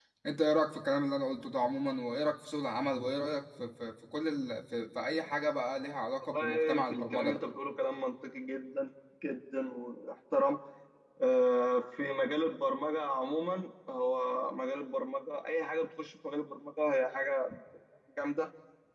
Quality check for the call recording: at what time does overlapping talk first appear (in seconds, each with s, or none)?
6.2 s